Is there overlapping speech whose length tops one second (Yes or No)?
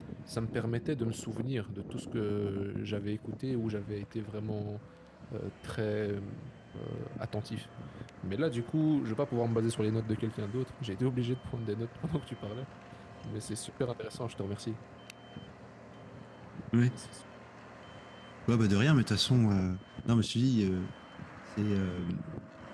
No